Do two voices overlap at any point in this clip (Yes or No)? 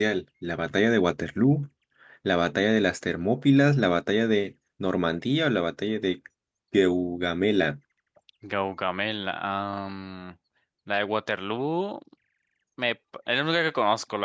No